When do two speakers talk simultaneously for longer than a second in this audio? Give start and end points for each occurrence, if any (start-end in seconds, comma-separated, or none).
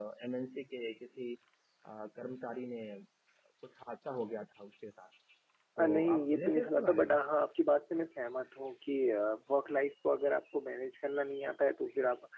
5.8-7.1